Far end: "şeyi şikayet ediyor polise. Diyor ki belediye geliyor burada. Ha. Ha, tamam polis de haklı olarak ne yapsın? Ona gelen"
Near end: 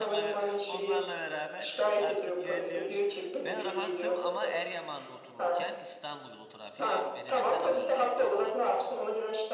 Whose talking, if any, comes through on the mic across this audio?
both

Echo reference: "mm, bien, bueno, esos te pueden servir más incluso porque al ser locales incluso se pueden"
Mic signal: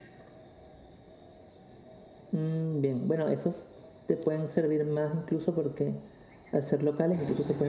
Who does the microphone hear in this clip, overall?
echo only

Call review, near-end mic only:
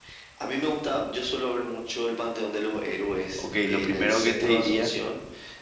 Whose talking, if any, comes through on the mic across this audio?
both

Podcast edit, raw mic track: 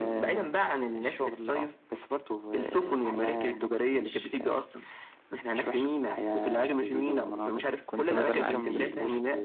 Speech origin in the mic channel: both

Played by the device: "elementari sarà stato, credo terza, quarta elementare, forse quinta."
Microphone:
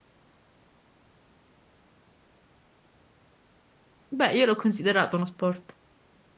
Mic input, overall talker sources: user only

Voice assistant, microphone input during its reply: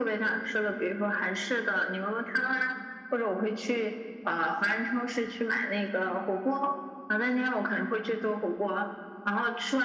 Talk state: echo only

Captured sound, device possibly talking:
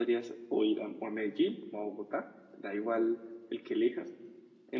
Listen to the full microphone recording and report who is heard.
user only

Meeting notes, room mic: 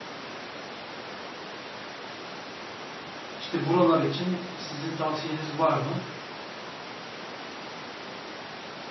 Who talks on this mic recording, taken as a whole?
user only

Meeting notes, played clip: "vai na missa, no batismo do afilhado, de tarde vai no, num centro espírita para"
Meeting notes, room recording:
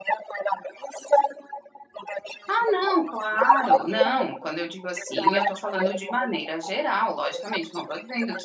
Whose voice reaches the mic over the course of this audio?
both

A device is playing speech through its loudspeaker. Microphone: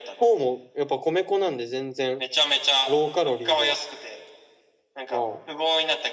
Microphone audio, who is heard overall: both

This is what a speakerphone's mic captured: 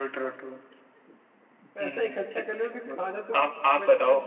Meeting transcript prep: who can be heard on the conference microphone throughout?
both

